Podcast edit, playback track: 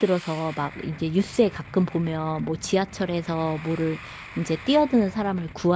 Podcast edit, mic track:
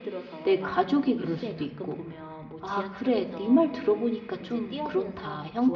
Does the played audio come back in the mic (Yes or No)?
Yes